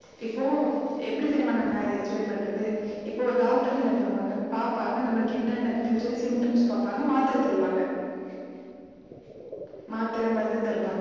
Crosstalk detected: No

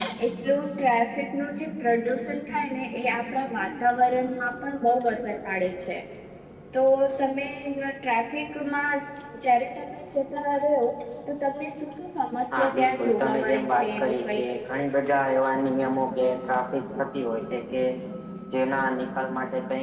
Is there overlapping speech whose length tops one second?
Yes, from 12.5 s

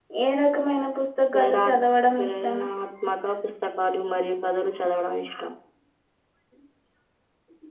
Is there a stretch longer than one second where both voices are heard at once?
No

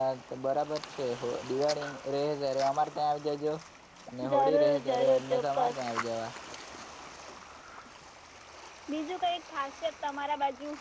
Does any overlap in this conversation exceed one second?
Yes, from 4.3 s

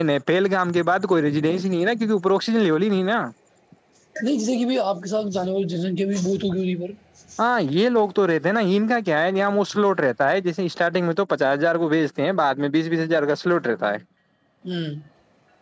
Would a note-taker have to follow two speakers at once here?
No

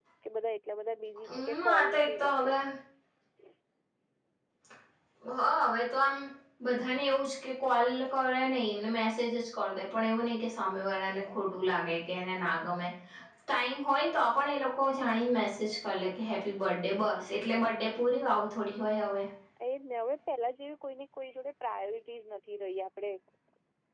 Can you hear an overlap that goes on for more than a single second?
Yes, from 1.3 s

